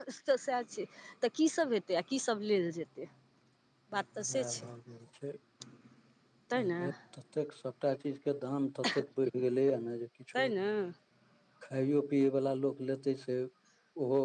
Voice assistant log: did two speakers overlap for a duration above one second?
No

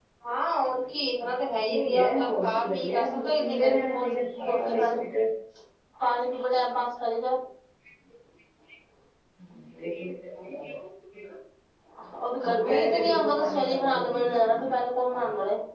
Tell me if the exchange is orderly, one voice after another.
No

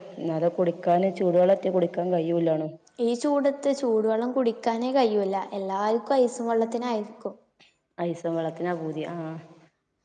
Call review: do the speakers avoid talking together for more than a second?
Yes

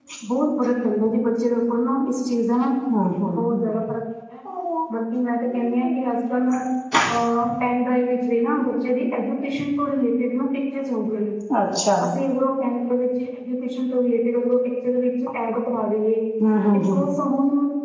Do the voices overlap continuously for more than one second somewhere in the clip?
No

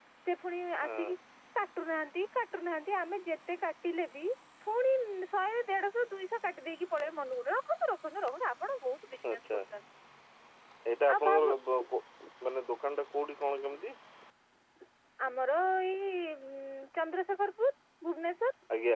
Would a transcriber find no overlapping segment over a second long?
Yes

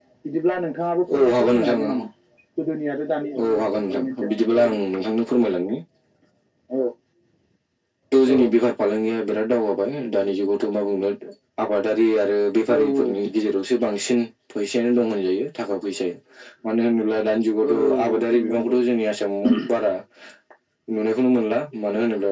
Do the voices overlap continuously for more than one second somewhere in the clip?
Yes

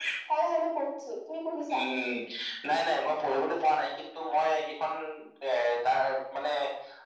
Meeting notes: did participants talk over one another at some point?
No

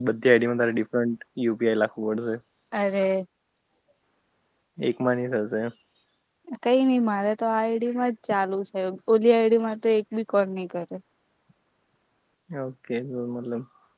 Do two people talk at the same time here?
No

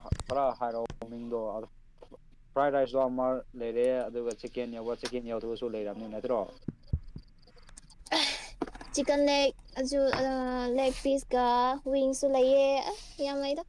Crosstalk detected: No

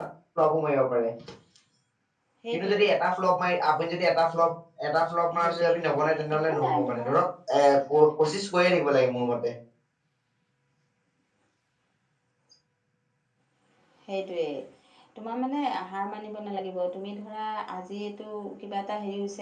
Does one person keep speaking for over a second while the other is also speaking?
Yes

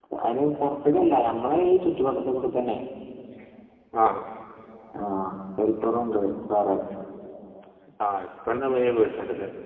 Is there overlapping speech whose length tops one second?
No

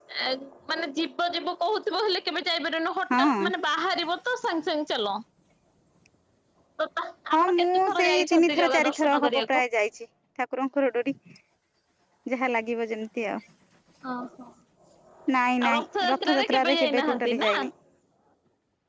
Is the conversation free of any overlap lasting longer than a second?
No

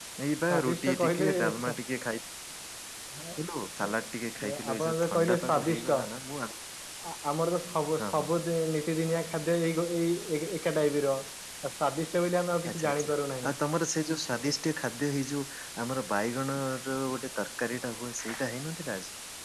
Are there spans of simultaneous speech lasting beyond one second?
Yes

